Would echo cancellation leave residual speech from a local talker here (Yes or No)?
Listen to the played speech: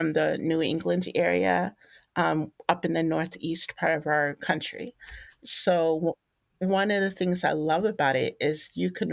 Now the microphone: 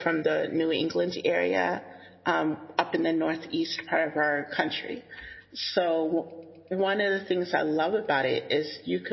No